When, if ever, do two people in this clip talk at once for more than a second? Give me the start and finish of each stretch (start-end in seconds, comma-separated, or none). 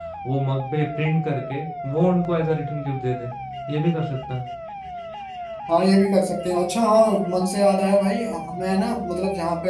none